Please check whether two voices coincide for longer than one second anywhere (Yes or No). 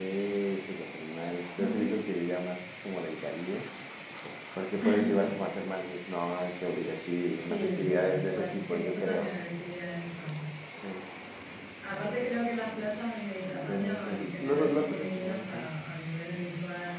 Yes